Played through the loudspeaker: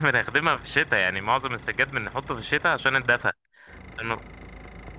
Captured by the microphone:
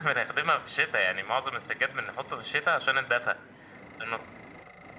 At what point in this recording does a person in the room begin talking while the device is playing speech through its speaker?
none

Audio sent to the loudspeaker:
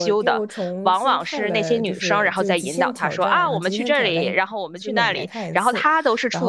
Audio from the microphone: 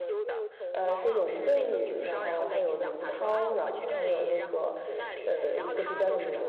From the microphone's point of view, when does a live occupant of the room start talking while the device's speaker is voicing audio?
0.7 s

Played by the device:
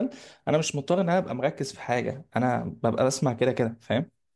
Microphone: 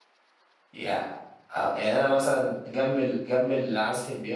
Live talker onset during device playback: 0.7 s

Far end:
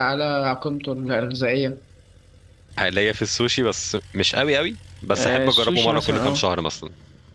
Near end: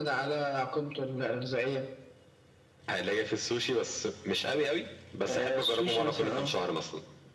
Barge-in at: none

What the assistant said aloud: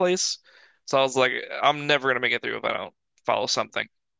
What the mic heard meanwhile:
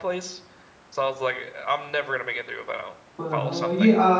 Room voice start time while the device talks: 3.2 s

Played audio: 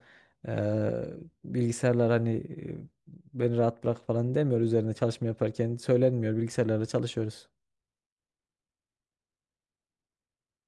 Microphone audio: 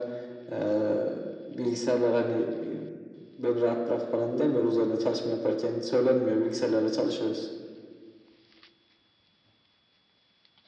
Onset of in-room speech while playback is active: none

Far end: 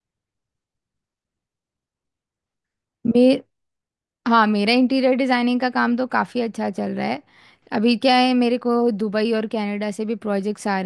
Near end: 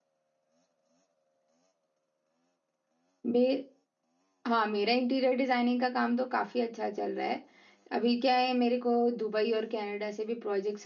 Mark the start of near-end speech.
none

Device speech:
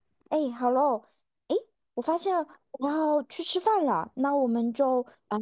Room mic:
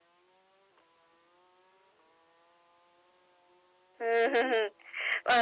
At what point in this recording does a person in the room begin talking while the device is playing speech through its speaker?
4.0 s

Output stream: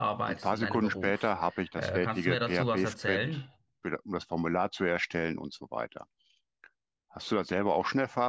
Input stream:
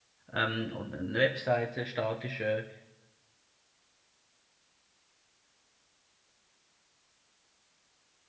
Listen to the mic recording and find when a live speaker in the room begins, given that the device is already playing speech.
0.3 s

